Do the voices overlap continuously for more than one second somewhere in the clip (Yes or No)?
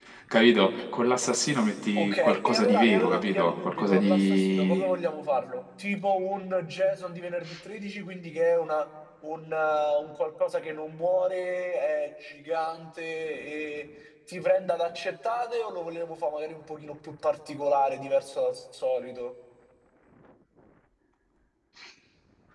Yes